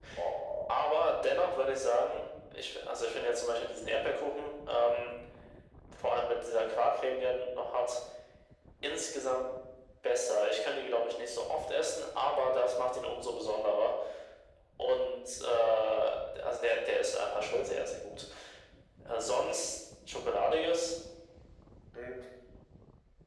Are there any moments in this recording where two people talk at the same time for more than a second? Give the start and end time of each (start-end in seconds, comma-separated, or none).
none